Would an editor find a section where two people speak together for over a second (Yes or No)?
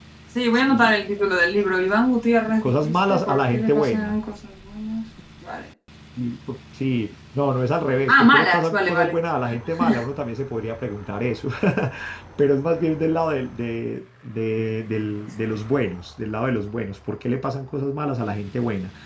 Yes